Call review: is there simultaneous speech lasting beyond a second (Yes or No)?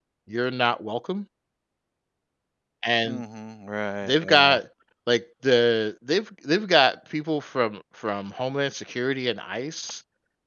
No